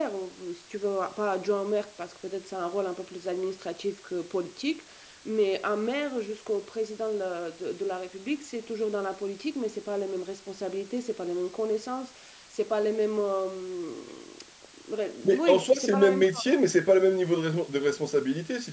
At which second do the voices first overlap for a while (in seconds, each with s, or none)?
15.2 s